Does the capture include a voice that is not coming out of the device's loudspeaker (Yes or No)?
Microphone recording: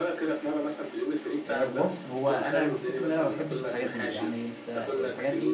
Yes